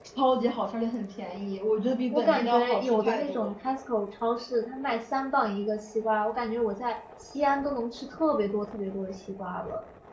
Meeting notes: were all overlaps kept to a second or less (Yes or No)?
No